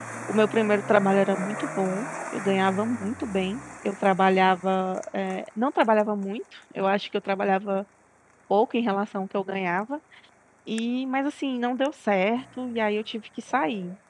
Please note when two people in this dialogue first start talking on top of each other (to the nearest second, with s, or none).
none